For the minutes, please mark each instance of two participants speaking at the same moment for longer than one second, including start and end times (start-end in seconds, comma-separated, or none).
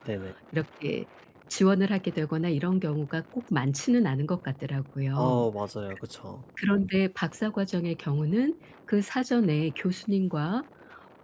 none